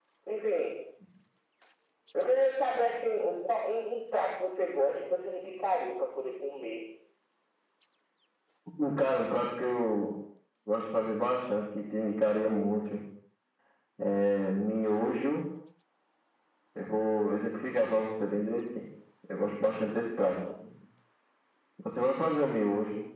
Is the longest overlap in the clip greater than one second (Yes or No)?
No